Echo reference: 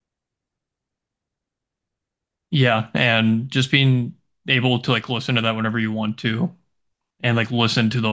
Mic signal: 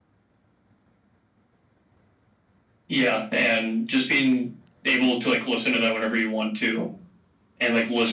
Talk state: echo only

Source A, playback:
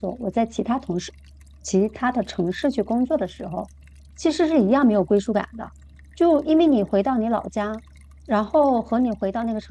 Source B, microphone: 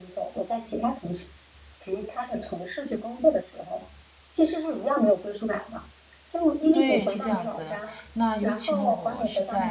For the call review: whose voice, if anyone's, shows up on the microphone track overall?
both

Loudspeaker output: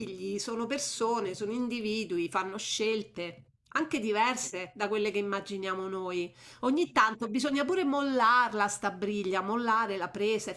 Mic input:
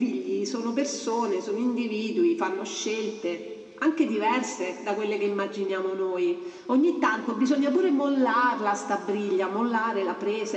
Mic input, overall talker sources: echo only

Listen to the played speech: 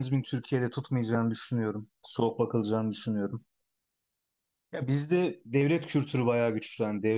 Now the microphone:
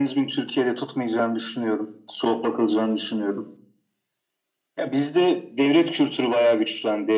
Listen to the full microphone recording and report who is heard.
echo only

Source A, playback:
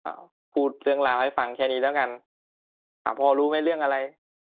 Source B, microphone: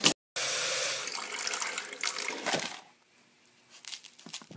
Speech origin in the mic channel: neither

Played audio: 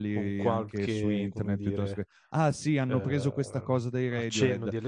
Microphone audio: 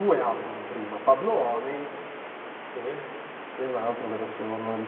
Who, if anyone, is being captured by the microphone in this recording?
user only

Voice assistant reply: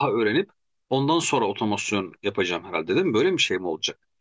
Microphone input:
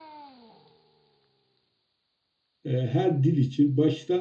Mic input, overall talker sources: user only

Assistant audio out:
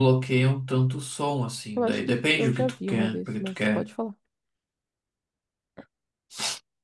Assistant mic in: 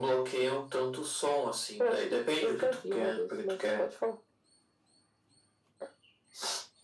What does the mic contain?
echo only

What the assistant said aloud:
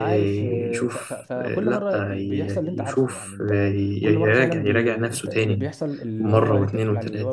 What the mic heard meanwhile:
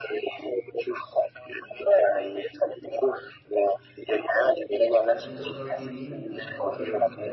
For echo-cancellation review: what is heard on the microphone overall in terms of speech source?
both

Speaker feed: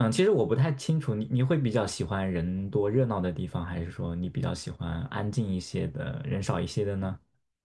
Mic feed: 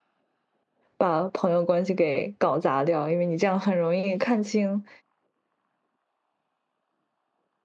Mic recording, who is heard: user only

